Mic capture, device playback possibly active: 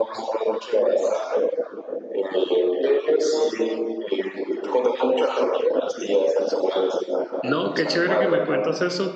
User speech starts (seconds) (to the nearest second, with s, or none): 7 s